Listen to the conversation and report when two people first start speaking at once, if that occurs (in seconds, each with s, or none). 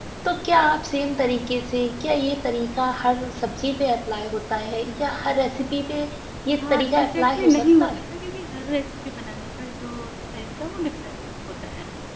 6.7 s